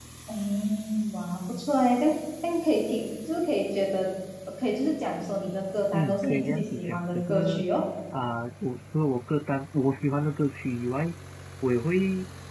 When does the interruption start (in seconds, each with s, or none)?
5.9 s